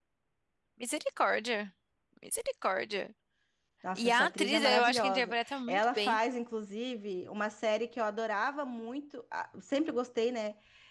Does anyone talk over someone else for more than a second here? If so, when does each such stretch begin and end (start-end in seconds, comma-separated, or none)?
4.0-6.2